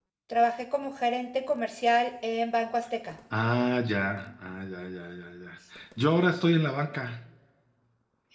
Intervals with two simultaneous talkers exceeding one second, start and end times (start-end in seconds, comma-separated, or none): none